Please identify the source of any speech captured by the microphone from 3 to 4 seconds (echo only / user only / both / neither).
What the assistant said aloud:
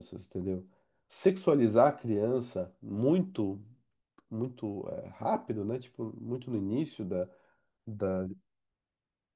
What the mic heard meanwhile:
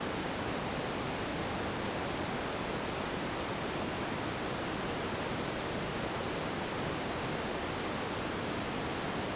neither